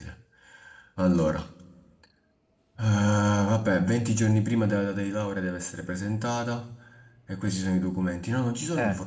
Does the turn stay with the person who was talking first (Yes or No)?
Yes